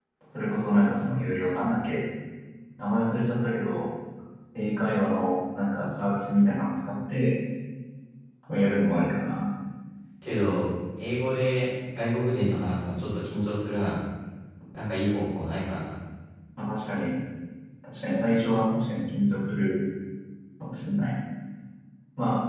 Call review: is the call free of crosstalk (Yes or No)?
Yes